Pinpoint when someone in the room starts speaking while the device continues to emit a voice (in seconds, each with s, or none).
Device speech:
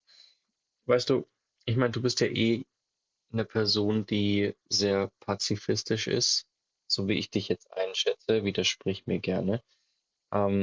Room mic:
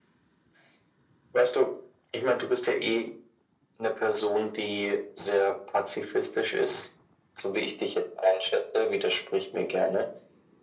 none